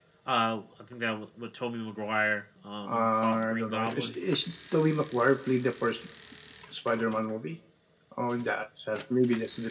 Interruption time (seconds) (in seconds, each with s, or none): 2.9 s